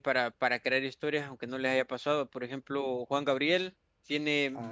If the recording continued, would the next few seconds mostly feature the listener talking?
No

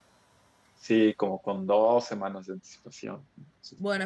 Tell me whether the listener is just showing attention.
No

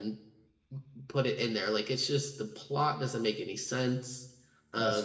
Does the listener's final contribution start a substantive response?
Yes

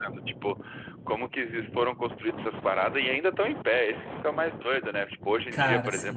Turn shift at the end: No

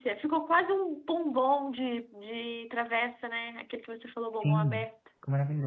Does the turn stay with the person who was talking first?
No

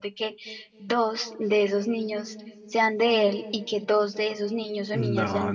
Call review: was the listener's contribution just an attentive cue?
No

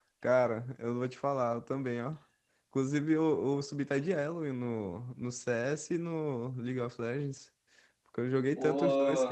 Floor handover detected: Yes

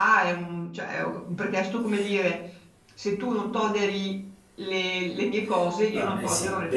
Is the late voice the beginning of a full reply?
Yes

